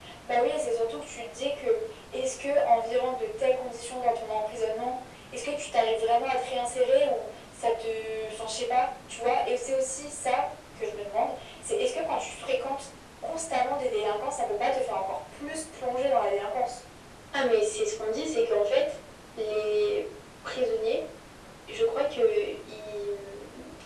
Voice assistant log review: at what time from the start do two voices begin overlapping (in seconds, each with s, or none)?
none